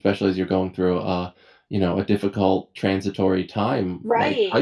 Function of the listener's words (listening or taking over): taking over